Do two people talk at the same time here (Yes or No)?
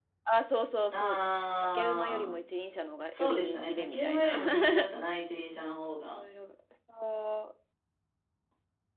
Yes